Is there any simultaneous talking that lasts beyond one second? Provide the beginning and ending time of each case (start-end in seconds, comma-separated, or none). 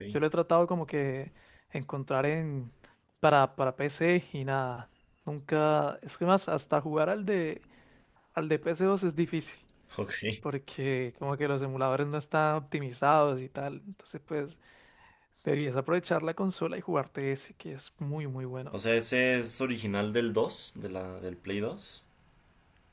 none